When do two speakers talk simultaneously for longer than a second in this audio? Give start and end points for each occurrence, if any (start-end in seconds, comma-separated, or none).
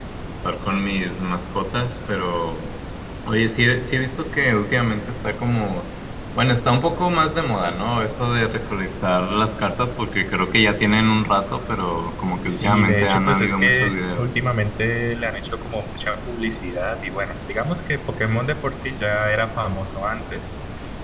12.5-14.2